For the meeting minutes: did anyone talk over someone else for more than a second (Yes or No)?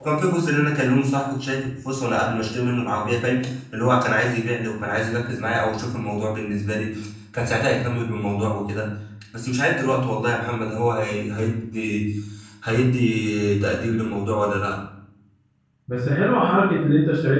No